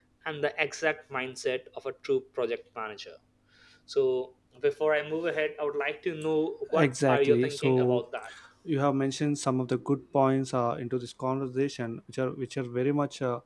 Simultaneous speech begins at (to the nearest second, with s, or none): 7 s